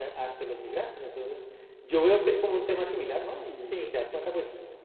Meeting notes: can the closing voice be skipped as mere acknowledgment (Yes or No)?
Yes